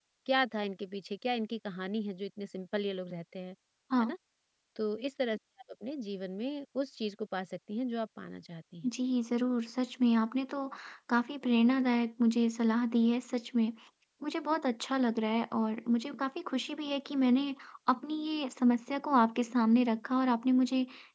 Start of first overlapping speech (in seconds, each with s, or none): none